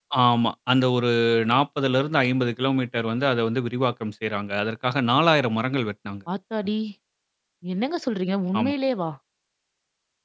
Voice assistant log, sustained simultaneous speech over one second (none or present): none